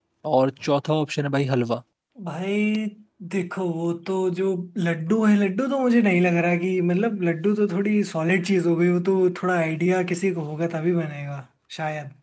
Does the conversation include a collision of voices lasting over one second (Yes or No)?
No